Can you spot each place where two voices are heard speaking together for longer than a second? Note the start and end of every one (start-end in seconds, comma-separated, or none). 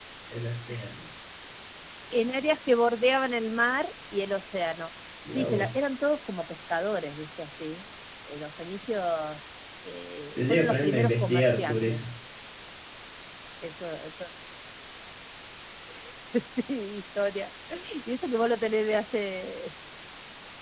10.4-12.0